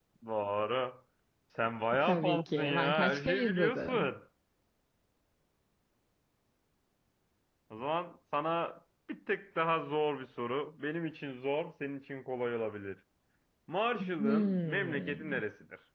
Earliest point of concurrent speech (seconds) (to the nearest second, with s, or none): 2 s